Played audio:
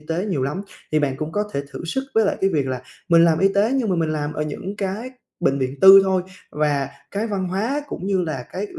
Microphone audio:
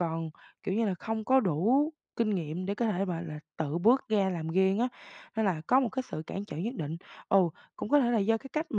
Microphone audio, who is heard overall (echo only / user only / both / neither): user only